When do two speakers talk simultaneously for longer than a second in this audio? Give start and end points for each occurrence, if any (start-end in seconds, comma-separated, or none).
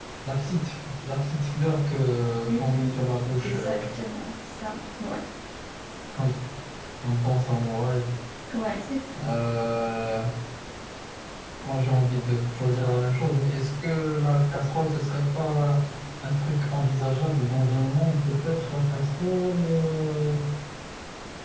2.5-3.8